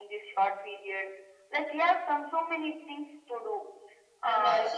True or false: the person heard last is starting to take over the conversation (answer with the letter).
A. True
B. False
A